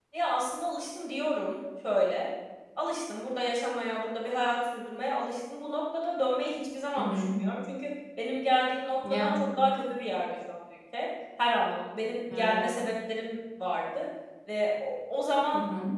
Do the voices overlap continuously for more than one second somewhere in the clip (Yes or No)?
No